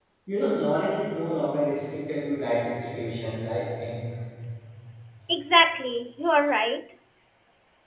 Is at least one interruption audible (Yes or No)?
No